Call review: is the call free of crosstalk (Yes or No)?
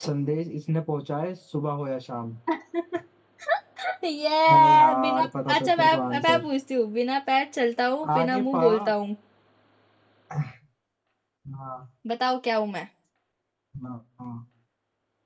No